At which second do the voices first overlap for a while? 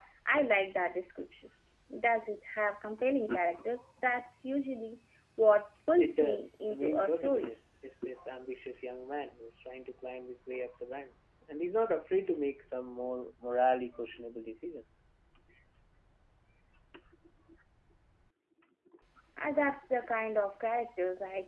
6 s

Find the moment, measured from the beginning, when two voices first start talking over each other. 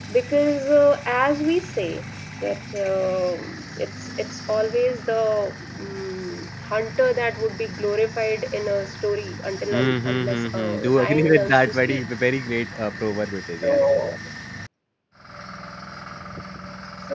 10 s

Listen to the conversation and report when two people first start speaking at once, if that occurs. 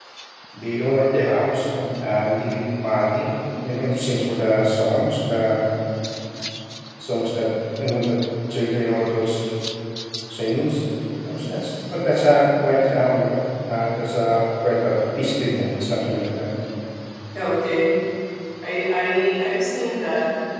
none

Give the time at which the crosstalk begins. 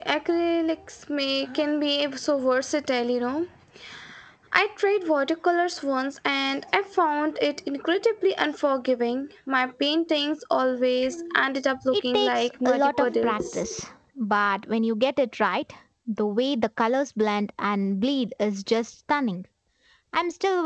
12 s

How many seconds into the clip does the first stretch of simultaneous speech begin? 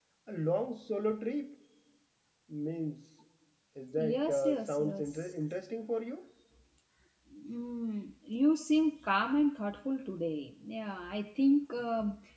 4 s

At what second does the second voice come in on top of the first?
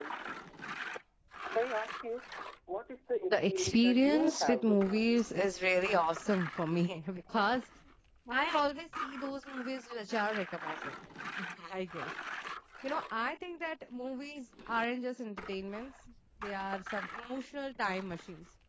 3 s

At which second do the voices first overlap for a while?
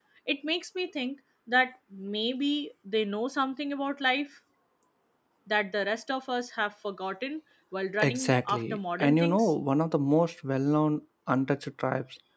8 s

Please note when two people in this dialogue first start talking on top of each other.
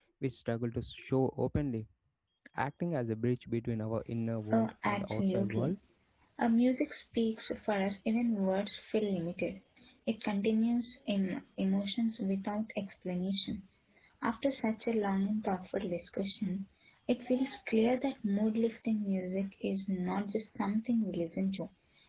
5 s

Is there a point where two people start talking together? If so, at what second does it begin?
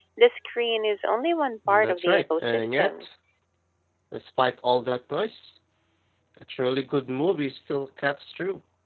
2 s

